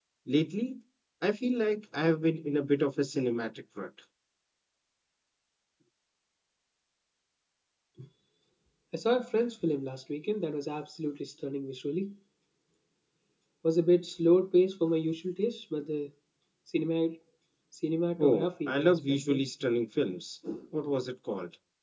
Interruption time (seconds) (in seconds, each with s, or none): 18.2 s